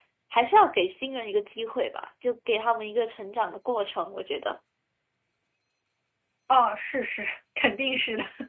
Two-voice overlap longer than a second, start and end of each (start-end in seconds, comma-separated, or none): none